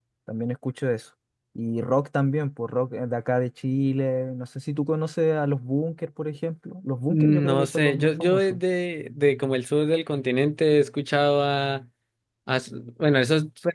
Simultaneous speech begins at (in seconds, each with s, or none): 7.1 s